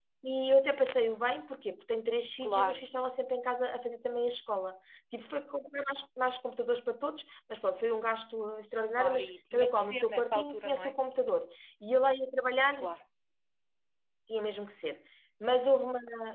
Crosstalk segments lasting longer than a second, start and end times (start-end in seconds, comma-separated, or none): 9.0-10.9